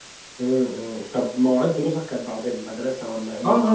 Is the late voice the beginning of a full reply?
Yes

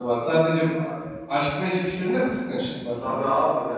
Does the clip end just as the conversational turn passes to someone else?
Yes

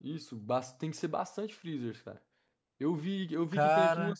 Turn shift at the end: No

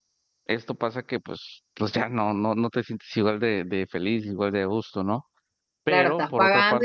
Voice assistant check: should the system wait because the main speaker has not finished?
No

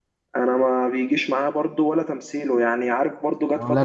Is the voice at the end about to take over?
No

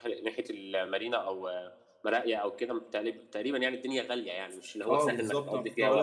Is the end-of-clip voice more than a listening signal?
Yes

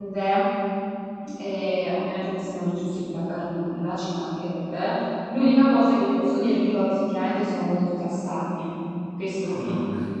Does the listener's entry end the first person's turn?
Yes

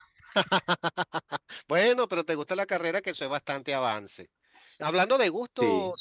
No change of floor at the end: Yes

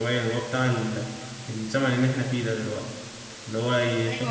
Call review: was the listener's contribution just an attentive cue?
Yes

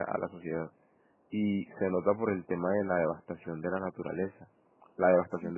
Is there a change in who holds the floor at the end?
No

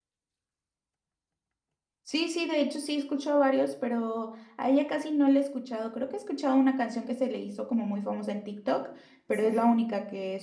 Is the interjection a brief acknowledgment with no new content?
Yes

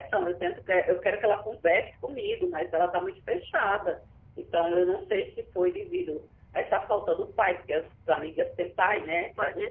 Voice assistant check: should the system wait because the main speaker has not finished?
No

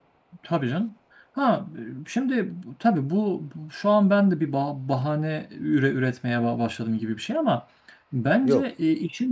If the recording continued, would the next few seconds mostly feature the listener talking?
No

